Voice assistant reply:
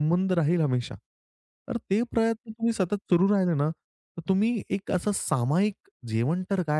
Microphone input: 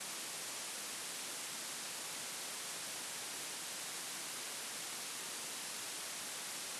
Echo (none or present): none